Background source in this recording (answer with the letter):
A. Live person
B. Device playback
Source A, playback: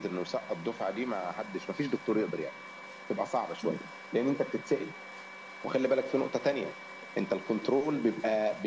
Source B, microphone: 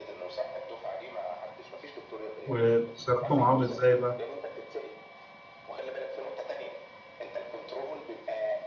B